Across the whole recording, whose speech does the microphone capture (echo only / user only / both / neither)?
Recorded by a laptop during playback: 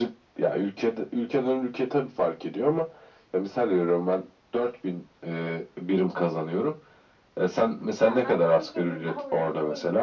both